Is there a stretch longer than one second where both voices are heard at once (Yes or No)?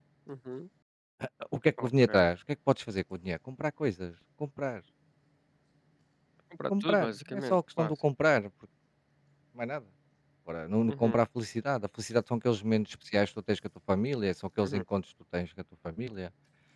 Yes